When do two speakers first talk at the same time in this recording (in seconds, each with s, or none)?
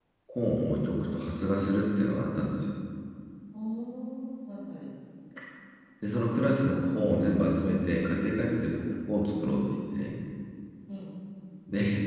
none